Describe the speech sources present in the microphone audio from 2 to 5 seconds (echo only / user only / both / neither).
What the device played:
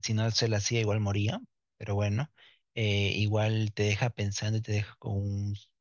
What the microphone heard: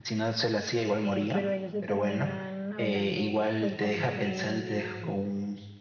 both